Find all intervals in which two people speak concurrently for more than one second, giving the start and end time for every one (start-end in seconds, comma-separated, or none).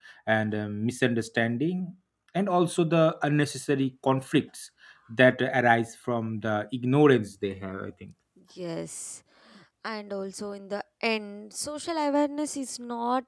none